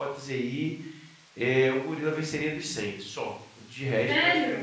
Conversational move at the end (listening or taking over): taking over